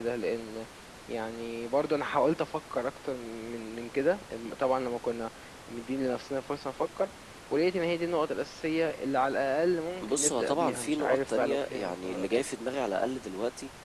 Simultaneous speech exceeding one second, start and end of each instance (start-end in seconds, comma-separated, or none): 10.0-12.2